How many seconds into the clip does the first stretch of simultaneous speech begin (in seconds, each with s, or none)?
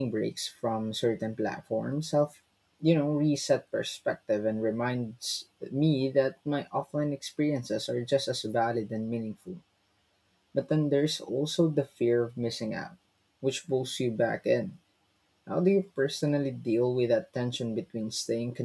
none